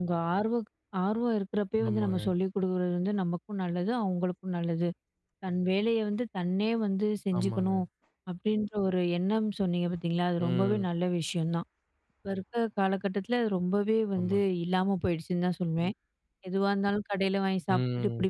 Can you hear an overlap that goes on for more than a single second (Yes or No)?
No